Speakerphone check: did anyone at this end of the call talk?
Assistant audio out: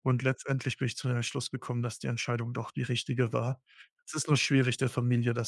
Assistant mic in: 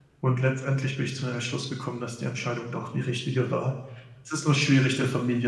No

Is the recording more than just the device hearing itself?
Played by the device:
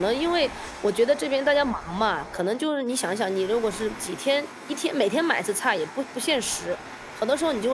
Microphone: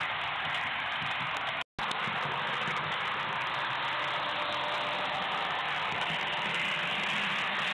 No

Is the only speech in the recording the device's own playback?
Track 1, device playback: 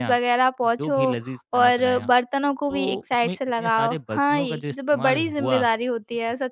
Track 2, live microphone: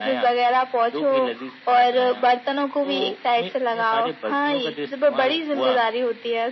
Yes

